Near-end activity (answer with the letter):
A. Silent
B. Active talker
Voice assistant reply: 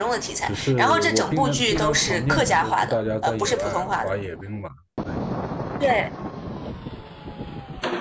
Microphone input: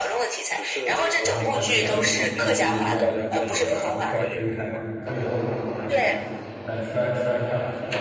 B